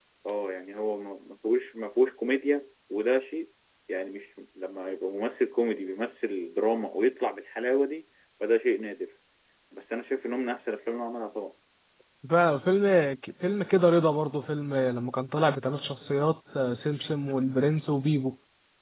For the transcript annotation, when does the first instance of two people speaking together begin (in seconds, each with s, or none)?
none